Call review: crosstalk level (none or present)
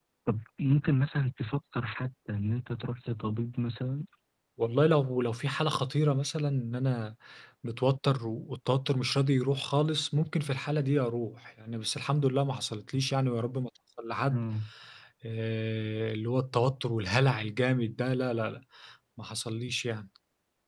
none